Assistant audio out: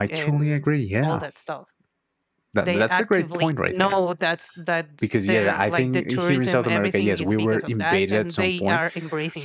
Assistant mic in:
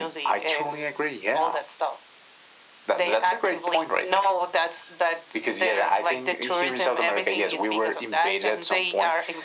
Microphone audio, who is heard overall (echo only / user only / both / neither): echo only